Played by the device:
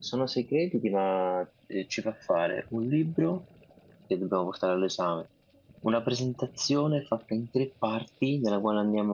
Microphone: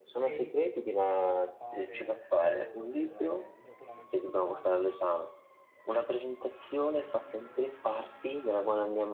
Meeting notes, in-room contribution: present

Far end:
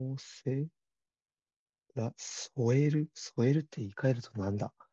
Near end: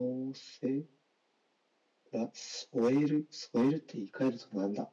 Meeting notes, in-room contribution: none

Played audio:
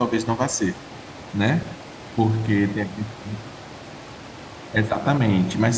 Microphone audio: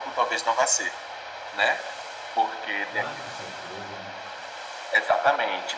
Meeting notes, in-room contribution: present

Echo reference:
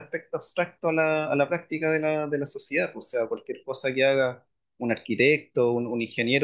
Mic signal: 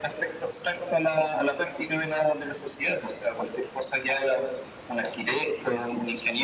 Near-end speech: none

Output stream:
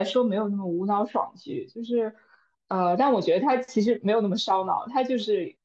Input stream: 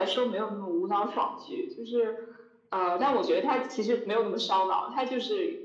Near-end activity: none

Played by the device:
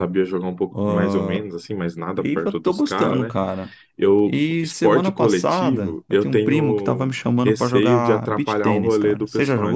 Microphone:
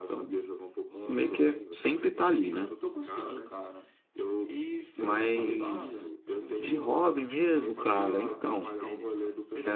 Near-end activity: present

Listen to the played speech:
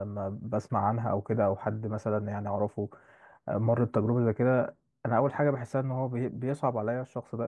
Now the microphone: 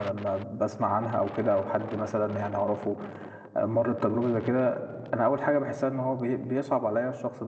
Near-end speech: none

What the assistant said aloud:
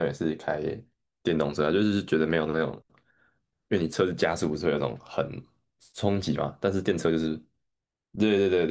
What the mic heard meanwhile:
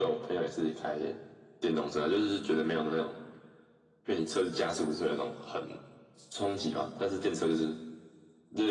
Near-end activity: none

